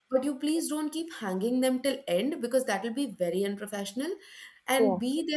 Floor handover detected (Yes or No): No